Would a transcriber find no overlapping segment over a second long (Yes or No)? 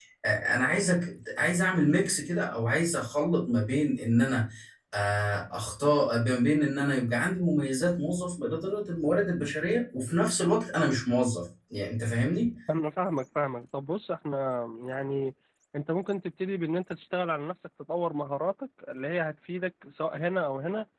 Yes